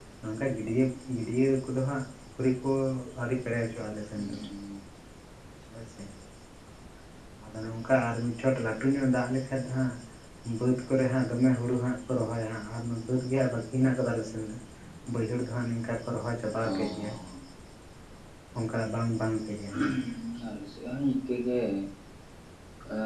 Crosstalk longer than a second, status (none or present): none